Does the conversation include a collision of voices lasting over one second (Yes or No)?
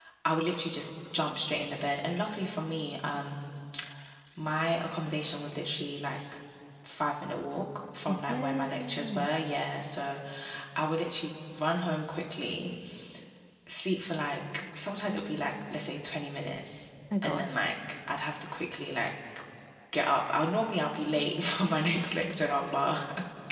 Yes